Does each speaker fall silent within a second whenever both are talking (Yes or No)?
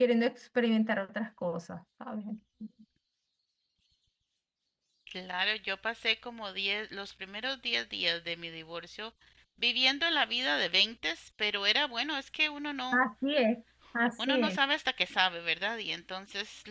Yes